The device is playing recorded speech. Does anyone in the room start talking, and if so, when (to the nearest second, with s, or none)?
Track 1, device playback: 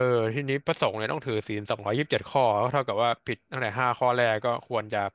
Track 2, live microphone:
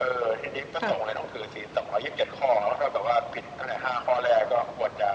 1 s